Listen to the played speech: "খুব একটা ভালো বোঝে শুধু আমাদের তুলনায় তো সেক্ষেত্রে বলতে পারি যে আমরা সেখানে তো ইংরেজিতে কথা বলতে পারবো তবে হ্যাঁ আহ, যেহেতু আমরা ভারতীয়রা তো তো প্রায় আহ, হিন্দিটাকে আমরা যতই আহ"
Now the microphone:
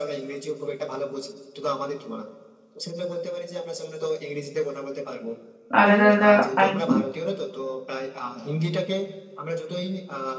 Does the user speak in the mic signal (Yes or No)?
Yes